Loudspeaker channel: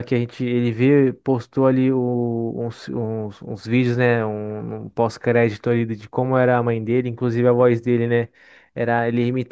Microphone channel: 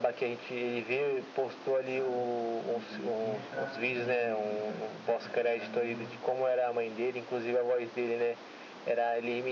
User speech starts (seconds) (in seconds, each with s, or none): 1.8 s